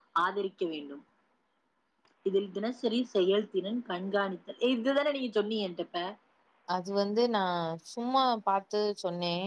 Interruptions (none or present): none